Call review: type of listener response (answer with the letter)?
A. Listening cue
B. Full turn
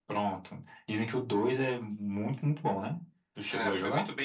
B